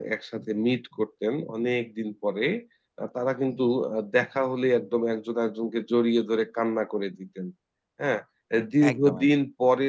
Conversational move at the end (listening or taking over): listening